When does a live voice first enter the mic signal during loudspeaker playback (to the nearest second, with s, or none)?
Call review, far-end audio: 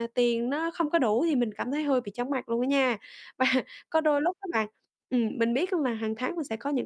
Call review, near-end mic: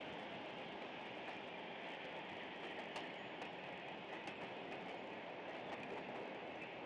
none